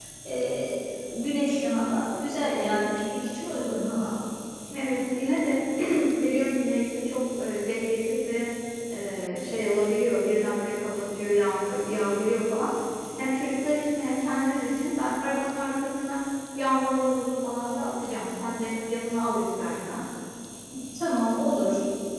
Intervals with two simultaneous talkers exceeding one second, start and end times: none

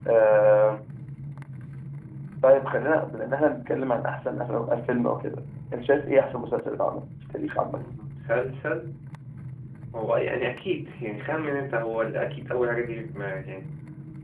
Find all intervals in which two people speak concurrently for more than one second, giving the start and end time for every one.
none

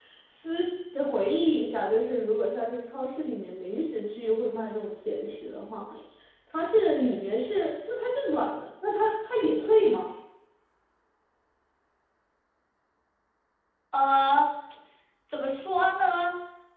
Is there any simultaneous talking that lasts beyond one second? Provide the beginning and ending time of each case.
none

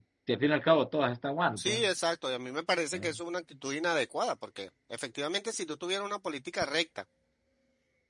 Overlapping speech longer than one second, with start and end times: none

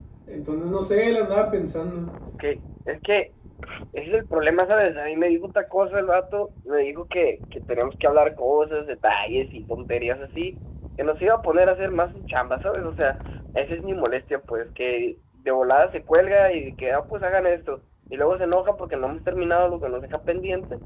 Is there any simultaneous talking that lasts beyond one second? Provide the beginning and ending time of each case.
none

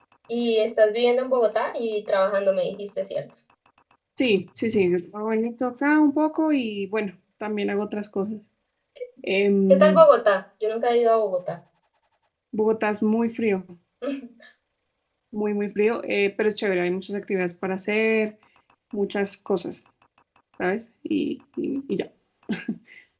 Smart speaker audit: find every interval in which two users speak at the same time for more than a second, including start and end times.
none

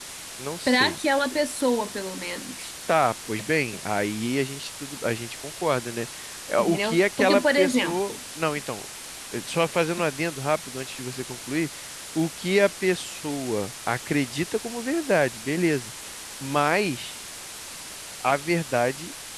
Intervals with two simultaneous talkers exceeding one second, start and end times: 6.6-8.0

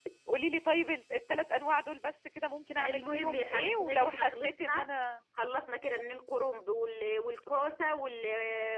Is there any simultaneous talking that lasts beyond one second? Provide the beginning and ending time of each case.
2.8-4.9

